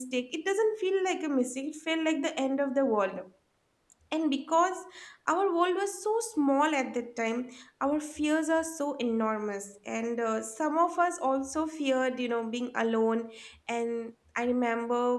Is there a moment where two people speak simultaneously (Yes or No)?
No